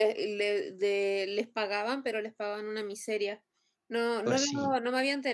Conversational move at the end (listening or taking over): listening